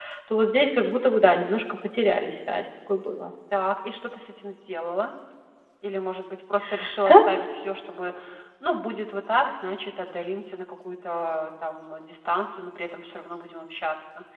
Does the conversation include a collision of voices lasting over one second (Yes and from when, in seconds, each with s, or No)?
No